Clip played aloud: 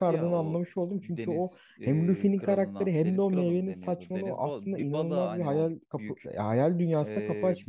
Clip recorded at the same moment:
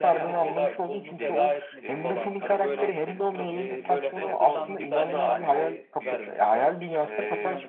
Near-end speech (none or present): present